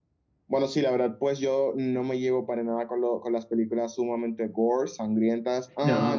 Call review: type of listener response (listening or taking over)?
listening